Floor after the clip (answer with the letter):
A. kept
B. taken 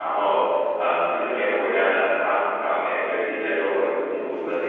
B